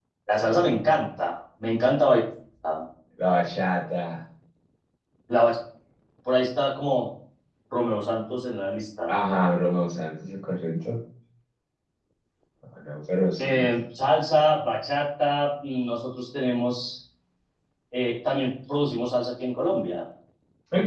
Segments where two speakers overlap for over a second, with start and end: none

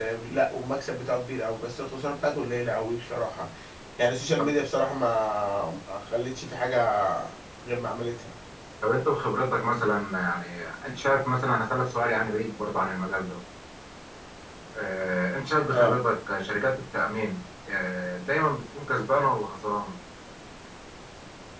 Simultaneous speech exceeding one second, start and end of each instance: none

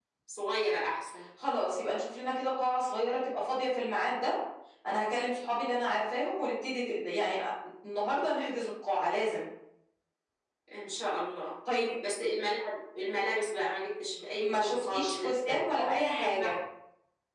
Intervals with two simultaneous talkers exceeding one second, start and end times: 14.4-16.5

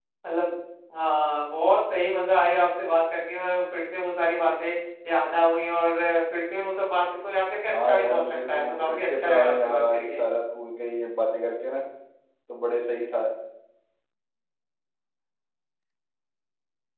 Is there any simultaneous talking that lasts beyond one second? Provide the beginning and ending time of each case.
7.9-10.2

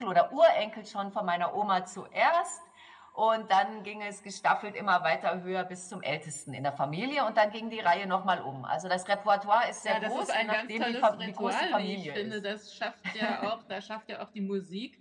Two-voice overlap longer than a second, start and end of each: 9.8-12.3

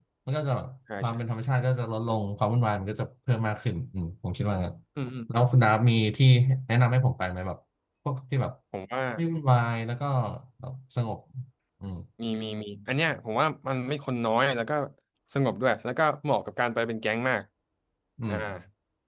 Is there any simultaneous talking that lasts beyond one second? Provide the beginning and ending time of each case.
none

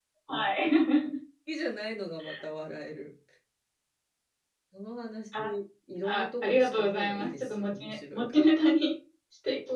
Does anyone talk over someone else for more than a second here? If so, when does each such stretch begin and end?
6.0-8.4

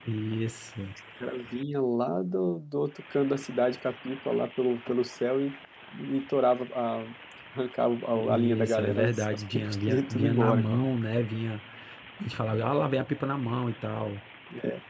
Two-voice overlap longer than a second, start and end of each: 8.1-10.7

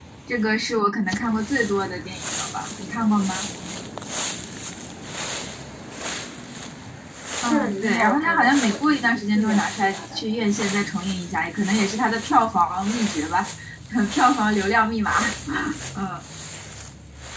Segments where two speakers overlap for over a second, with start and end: 7.5-10.5

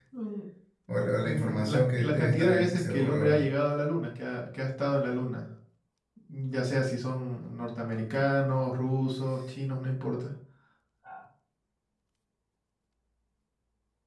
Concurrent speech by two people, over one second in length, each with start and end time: 1.2-3.5

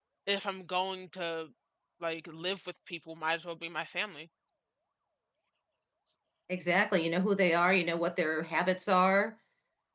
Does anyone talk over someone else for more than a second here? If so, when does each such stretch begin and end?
none

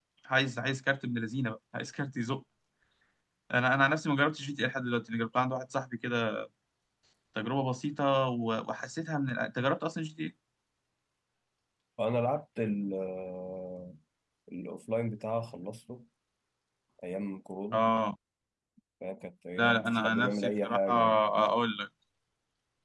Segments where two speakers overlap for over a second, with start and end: 19.6-20.9

